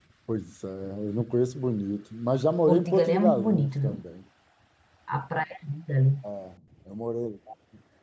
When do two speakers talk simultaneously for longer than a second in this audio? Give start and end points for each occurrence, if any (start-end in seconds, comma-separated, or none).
2.7-3.9